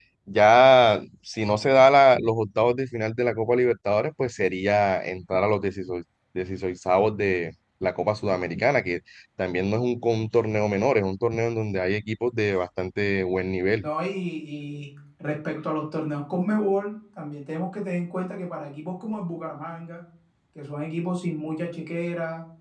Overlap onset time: none

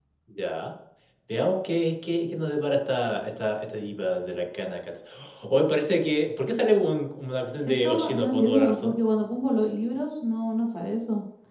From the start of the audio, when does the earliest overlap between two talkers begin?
7.7 s

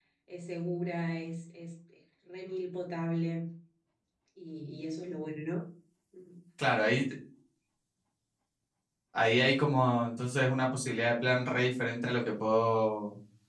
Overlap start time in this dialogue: none

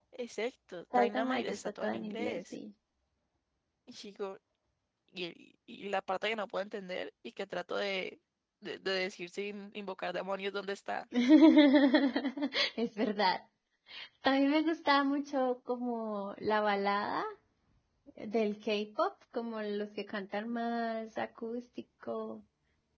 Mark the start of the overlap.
1.0 s

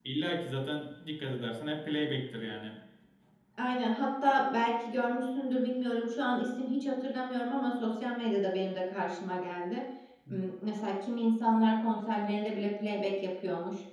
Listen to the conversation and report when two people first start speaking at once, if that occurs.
none

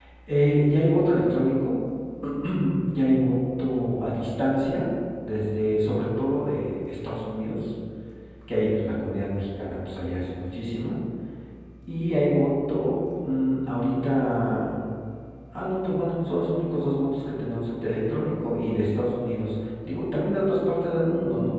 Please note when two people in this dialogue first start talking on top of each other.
none

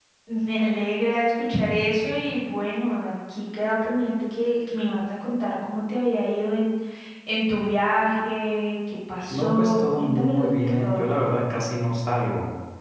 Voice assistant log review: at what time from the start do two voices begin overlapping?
9.3 s

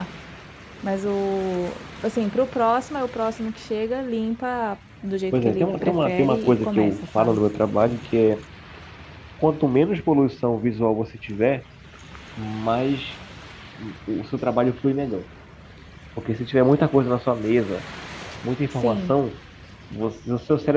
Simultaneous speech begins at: 5.3 s

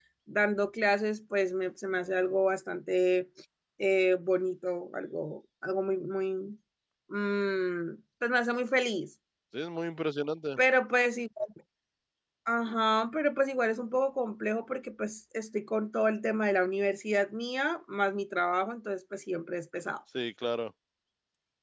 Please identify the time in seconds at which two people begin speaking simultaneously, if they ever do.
none

